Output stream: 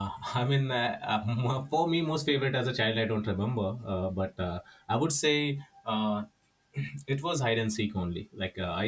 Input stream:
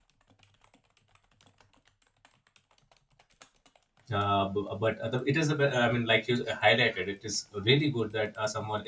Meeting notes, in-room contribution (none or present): present